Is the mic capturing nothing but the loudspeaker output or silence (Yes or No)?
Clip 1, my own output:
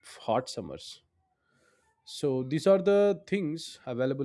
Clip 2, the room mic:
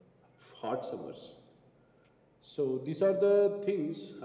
Yes